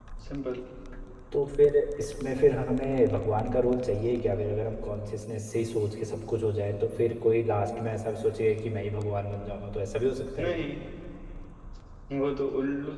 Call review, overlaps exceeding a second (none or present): none